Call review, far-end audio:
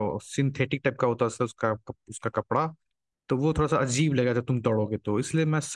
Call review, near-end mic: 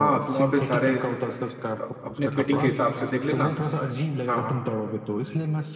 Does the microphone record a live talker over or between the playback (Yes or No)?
Yes